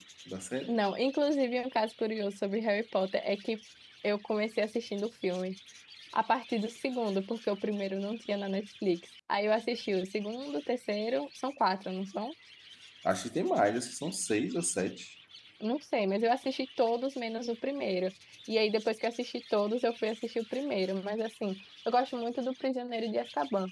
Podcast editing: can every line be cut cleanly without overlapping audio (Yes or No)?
Yes